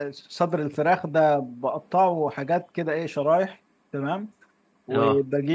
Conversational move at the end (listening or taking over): listening